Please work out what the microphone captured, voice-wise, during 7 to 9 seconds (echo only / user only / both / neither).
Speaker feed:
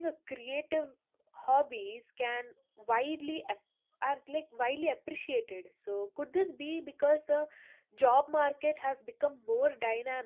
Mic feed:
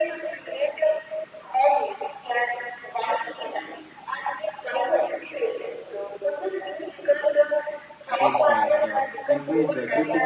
both